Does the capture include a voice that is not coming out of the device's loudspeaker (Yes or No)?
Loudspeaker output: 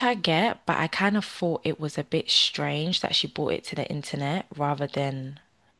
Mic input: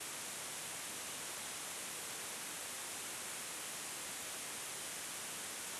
No